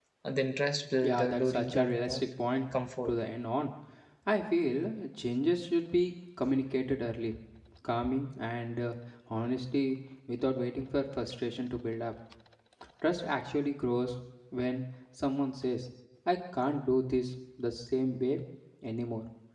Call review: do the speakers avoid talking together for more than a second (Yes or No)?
No